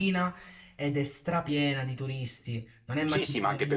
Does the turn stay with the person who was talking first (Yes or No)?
No